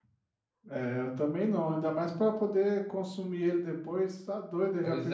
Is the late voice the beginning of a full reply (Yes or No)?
Yes